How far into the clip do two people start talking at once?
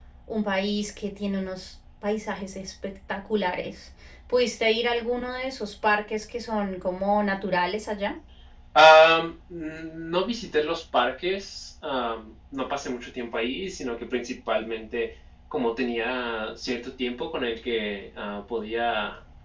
none

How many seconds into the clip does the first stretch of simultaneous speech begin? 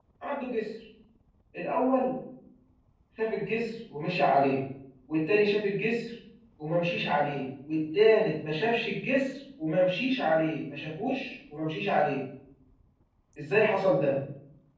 none

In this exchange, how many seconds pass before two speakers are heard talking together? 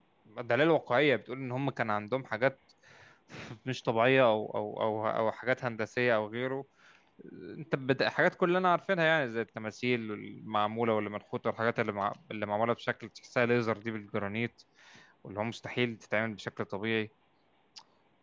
none

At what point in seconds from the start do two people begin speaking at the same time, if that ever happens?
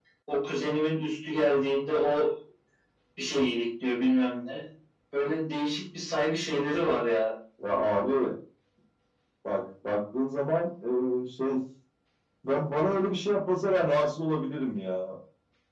none

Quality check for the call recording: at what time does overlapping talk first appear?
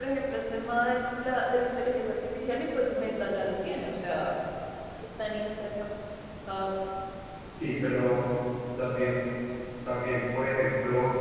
none

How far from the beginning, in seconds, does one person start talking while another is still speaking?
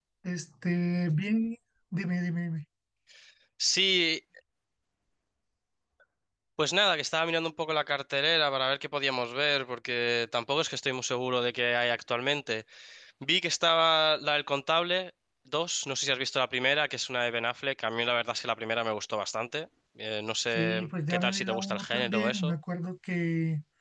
21 s

